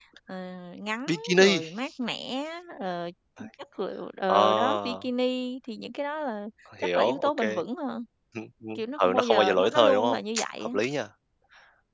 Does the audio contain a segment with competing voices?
Yes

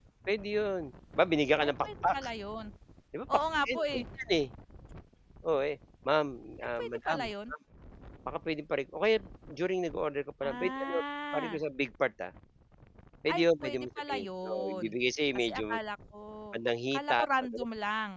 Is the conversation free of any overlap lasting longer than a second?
No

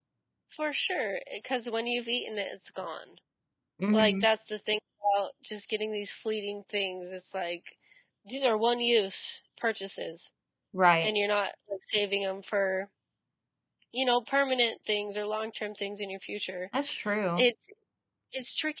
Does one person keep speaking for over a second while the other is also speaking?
No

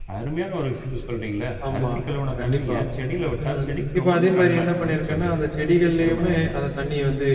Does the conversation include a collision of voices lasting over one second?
Yes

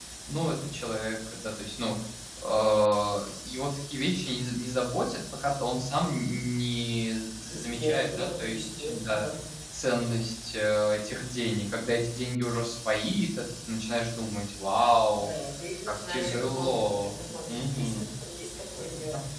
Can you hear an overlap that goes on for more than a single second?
Yes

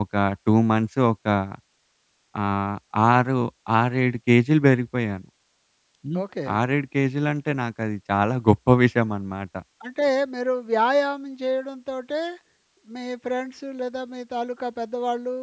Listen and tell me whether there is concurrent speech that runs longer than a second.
No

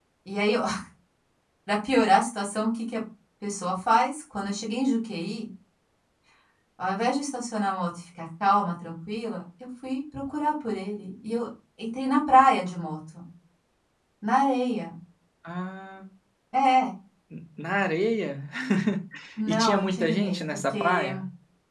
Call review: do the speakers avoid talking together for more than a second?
No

